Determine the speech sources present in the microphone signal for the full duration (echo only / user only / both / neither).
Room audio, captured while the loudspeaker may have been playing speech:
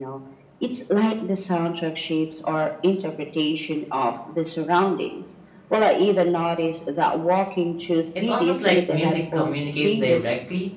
both